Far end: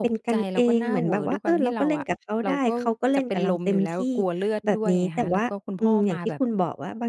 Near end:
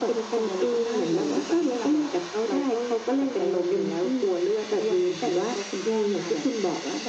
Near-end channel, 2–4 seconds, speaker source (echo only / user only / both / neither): echo only